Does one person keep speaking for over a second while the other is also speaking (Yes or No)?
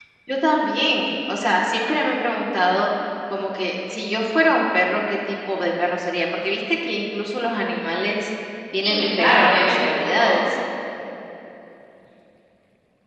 Yes